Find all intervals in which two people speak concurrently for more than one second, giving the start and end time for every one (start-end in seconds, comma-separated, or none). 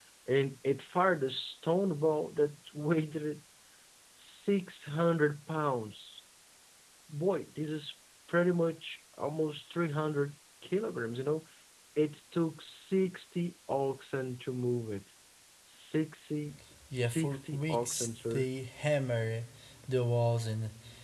17.0-18.4